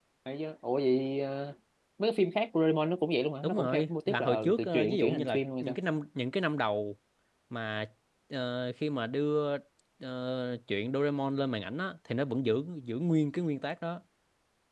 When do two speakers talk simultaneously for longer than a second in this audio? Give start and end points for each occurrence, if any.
3.4-5.8

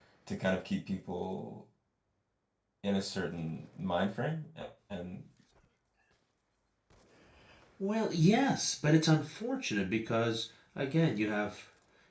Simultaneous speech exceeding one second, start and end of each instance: none

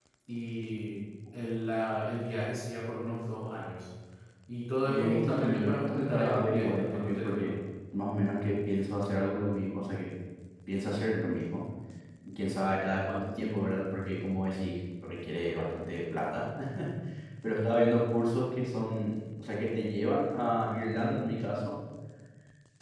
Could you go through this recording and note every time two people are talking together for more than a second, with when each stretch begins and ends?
4.8-7.5

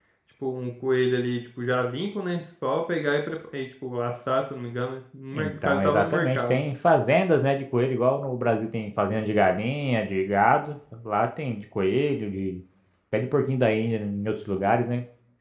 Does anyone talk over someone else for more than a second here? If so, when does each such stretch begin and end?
5.3-6.6

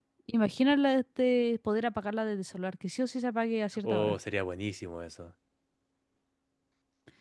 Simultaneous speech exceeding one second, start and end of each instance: none

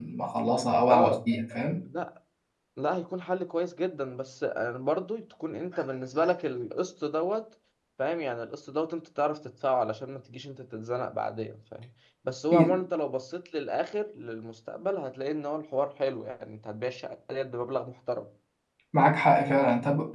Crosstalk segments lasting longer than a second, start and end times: none

